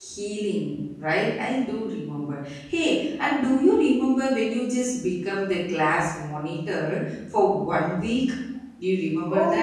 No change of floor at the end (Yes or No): No